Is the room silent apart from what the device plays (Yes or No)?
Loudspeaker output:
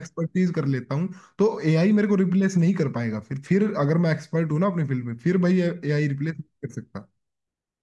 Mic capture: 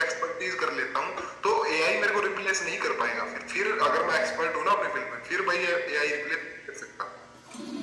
Yes